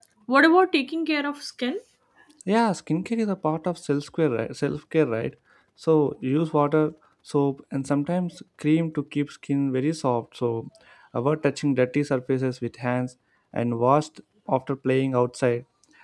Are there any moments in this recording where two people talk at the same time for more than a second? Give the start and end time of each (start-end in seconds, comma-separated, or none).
none